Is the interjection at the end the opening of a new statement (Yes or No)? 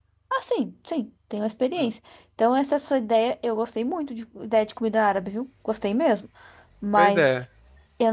No